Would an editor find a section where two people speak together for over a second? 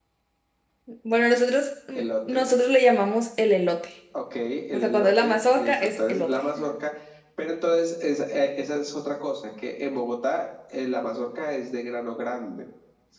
Yes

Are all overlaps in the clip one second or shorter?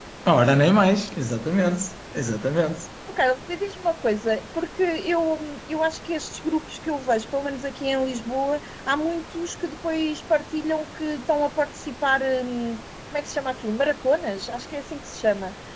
Yes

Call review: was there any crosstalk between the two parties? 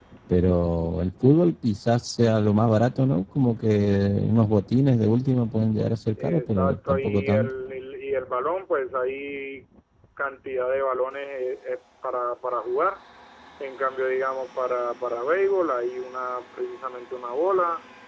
Yes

